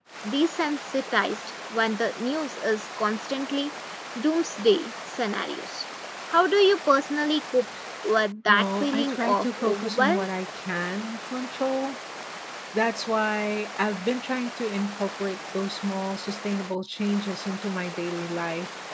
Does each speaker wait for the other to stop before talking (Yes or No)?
No